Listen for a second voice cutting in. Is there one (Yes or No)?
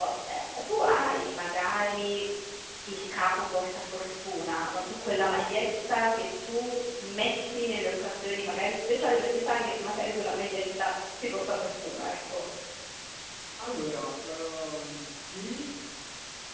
No